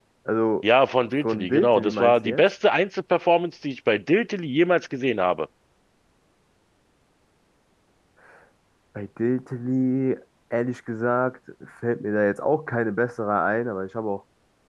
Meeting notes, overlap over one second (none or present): present